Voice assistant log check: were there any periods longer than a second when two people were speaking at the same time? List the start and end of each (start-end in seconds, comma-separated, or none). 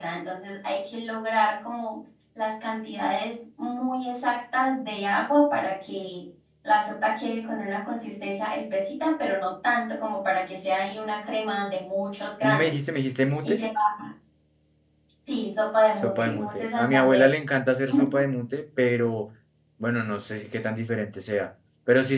16.0-17.2